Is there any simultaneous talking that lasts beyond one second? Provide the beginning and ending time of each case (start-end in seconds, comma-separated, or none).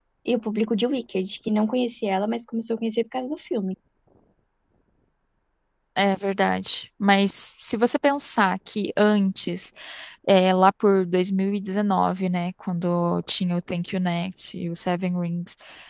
none